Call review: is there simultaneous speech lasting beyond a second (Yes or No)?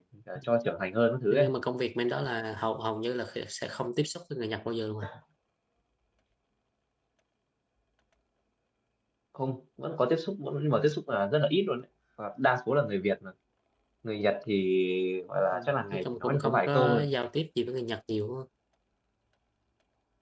Yes